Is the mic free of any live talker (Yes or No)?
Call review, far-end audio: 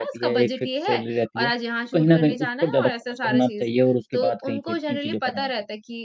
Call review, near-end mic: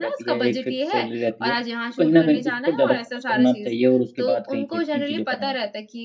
Yes